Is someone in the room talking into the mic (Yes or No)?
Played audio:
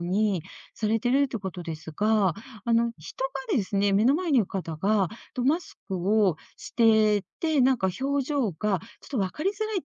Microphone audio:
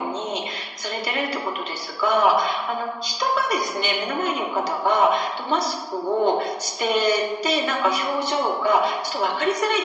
No